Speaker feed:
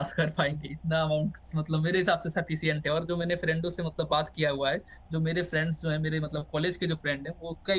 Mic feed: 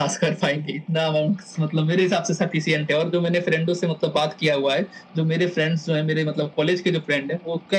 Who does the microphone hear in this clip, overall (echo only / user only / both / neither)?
echo only